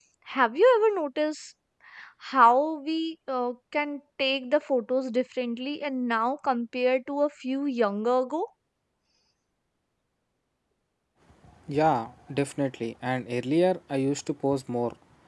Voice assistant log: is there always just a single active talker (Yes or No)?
Yes